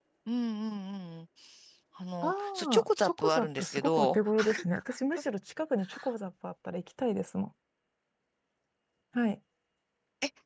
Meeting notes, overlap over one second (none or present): present